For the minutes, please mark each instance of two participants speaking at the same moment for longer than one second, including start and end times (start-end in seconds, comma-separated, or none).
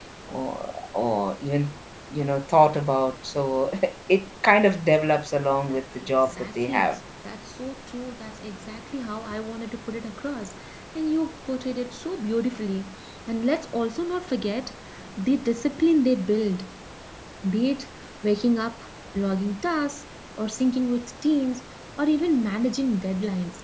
5.7-7.0